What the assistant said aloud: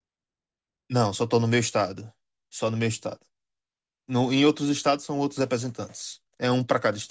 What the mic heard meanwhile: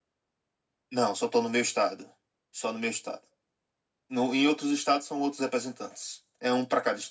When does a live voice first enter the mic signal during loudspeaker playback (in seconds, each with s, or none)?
none